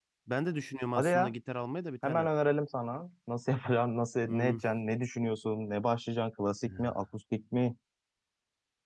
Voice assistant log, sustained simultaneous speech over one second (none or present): none